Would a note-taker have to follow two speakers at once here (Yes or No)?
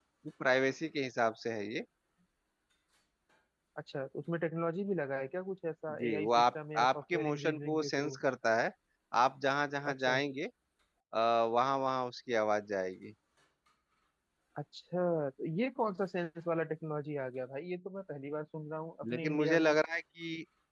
Yes